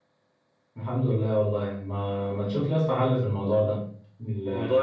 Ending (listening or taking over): listening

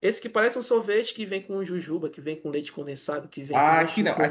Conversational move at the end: taking over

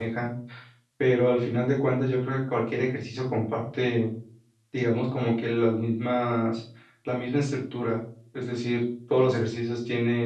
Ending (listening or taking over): listening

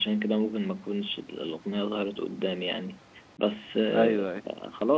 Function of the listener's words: listening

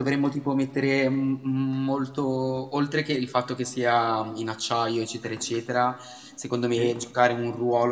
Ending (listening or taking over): listening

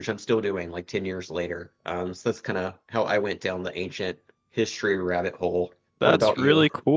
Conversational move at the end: taking over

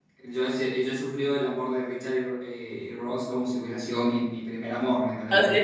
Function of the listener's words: listening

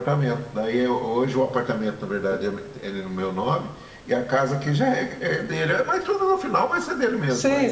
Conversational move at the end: taking over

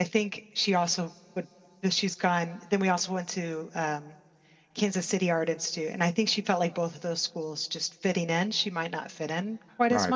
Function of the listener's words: taking over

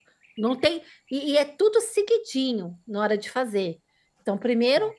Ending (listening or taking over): listening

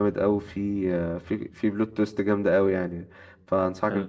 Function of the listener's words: listening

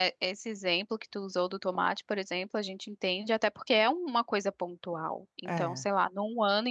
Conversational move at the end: listening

